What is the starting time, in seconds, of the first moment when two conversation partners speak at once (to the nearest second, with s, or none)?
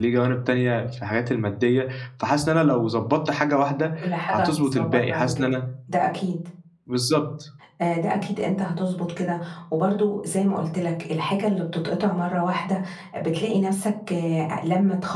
4 s